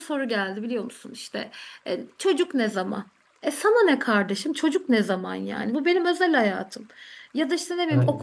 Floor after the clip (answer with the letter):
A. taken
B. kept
B